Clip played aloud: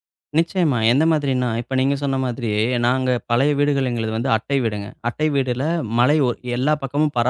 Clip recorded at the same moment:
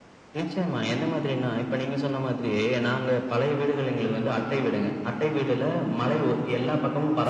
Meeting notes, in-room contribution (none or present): none